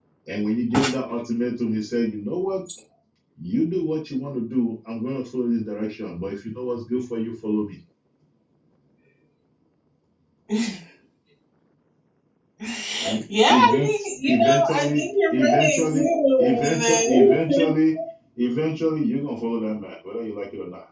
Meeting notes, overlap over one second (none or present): present